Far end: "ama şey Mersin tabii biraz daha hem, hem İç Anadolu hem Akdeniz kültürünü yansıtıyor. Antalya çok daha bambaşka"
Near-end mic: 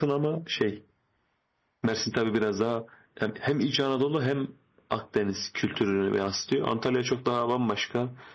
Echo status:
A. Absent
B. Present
B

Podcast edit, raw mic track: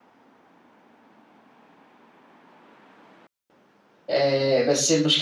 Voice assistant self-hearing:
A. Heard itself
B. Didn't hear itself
B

